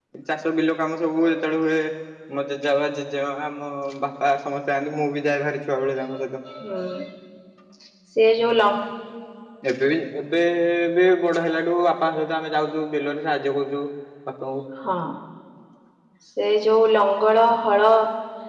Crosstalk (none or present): none